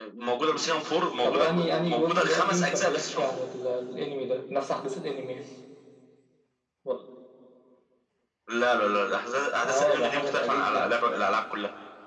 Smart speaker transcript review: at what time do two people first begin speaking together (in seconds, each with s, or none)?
1.2 s